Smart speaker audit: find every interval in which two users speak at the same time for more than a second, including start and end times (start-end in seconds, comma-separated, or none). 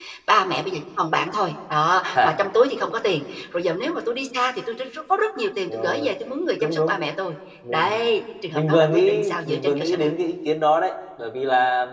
8.5-10.1